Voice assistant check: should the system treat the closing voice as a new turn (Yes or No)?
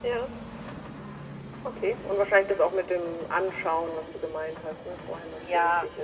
Yes